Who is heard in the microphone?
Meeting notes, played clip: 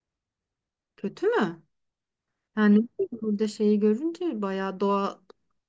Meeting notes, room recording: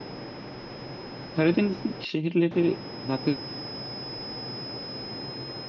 user only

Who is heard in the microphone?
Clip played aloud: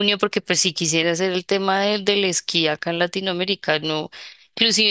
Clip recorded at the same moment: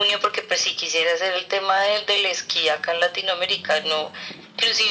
echo only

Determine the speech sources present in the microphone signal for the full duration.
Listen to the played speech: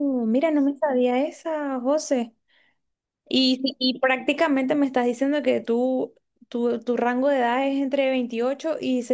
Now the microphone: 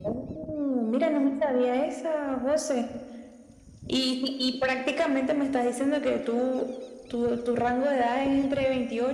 echo only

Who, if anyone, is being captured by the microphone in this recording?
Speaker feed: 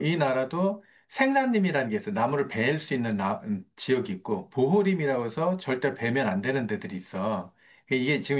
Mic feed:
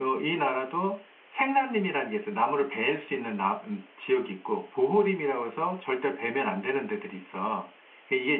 echo only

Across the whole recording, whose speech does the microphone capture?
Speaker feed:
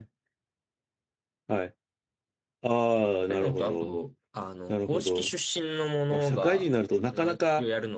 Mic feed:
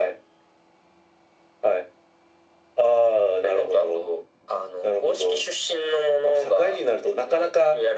echo only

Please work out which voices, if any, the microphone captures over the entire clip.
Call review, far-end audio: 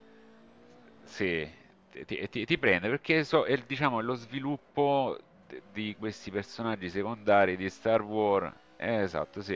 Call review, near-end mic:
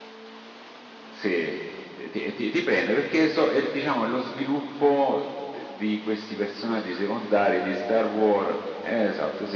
echo only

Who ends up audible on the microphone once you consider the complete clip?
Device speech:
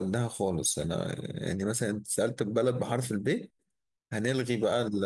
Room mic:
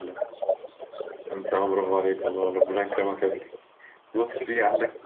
both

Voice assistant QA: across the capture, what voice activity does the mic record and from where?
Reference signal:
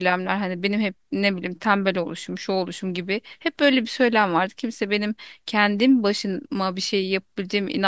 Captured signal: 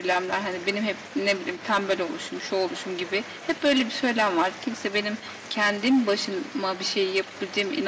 echo only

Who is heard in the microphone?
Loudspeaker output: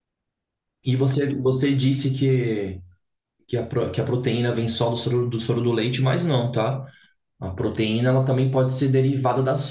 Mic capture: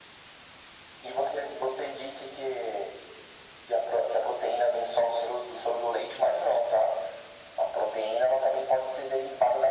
echo only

